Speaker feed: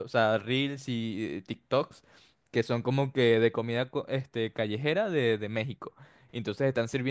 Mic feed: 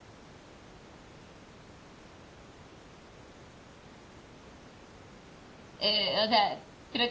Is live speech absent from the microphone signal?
No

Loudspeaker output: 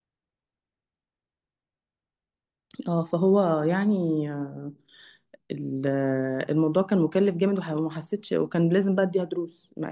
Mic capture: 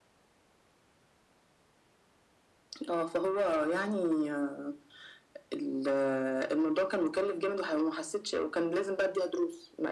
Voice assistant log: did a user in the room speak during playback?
No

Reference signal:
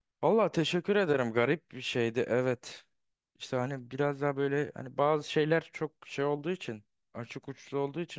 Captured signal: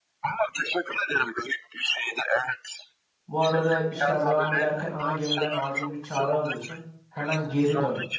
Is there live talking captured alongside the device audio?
Yes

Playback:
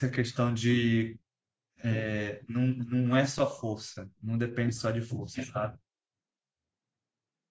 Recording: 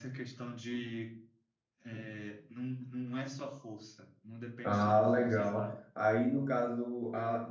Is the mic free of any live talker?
No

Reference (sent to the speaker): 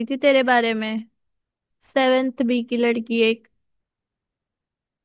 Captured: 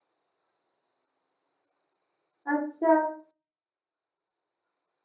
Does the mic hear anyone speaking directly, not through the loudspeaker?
Yes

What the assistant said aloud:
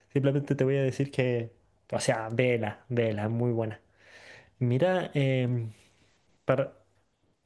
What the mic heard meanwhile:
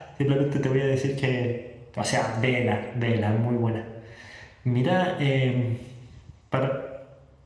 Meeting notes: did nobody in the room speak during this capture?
Yes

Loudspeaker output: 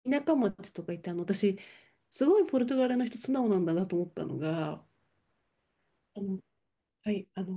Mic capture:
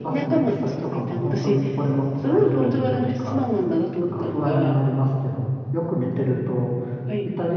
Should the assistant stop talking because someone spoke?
Yes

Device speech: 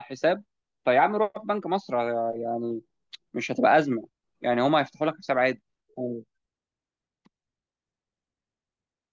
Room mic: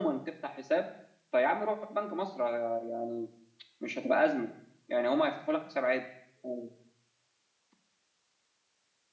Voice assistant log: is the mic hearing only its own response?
Yes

